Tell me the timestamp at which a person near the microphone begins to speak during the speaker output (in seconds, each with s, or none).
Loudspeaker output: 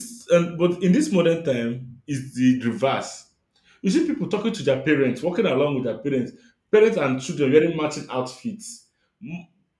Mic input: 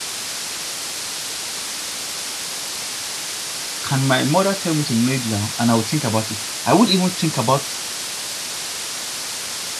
3.8 s